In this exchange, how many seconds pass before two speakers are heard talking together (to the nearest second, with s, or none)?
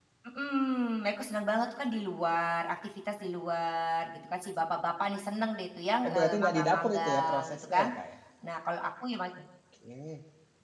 6 s